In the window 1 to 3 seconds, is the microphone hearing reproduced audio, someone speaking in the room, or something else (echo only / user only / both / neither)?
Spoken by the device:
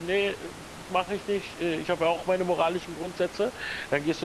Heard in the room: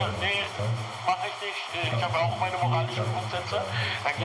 both